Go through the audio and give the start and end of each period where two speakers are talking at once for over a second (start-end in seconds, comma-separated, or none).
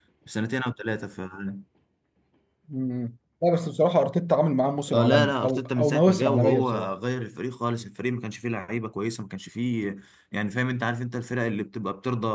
4.9-6.9